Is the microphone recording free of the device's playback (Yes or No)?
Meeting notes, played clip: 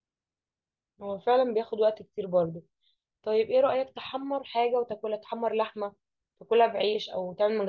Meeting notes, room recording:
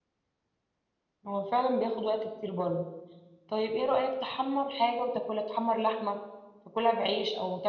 No